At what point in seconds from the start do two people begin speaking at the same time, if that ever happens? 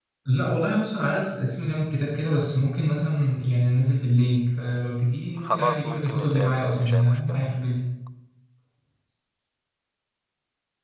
5 s

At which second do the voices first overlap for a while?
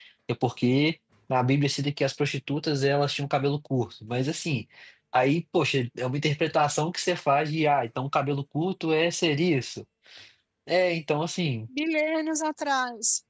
none

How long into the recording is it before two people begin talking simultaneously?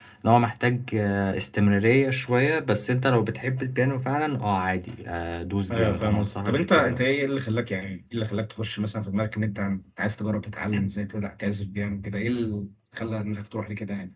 6 s

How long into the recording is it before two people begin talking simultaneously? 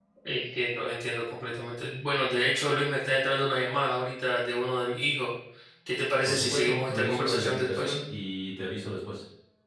6 s

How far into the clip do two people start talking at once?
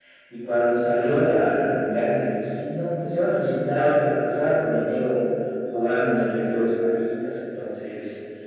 none

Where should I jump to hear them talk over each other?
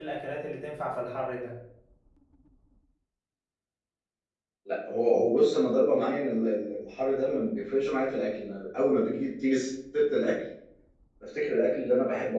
none

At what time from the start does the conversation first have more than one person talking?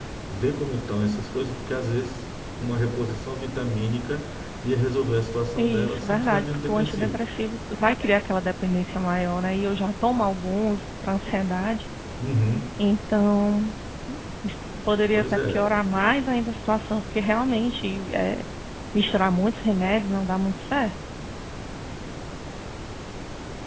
6 s

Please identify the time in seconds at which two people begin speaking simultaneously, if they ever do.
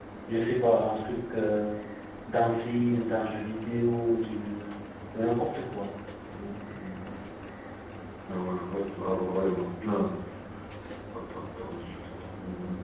none

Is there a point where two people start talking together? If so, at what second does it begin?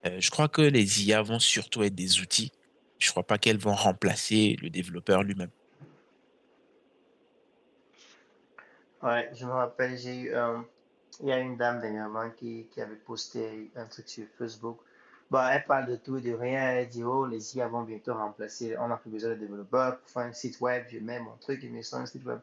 none

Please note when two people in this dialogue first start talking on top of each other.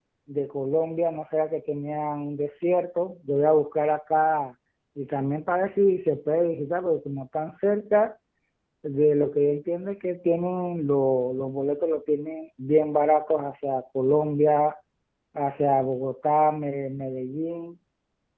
none

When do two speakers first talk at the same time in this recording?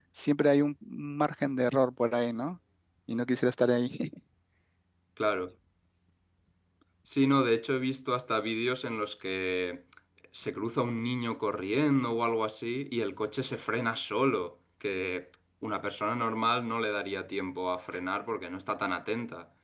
none

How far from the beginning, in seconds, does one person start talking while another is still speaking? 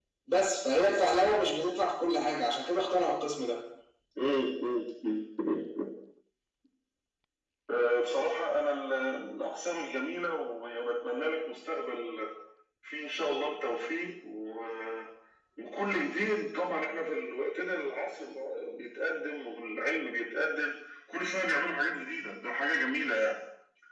none

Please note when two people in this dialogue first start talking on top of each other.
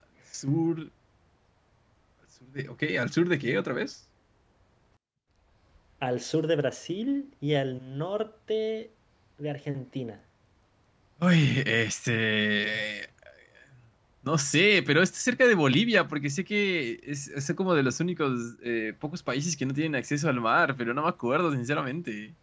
none

